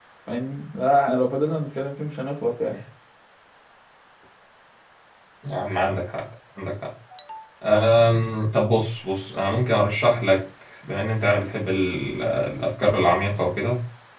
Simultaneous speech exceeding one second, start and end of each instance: none

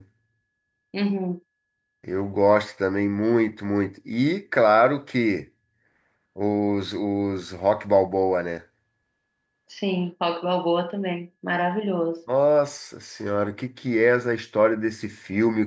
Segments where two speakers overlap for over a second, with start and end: none

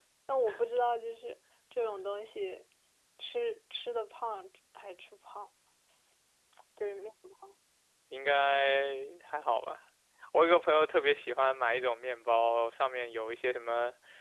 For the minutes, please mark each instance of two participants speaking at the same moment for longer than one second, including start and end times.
none

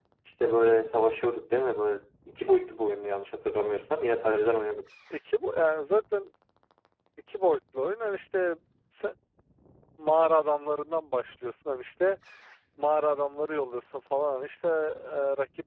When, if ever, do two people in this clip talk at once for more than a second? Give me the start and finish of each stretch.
none

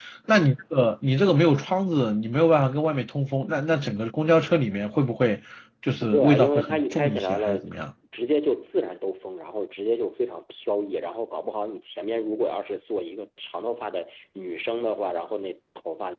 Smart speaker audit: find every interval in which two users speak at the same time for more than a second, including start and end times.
6.0-7.6

